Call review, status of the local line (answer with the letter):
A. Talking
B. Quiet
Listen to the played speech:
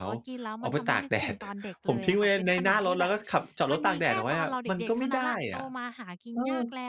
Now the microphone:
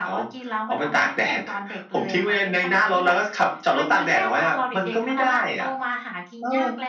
B